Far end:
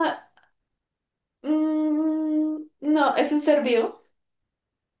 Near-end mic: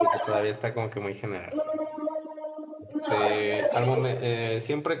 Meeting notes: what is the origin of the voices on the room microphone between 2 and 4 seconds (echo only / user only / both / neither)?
both